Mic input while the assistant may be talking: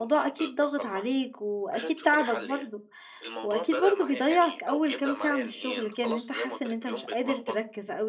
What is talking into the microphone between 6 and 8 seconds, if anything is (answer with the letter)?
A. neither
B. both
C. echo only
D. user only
B